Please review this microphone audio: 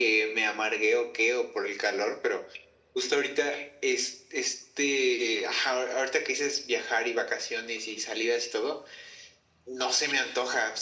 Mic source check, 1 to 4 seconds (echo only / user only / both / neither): echo only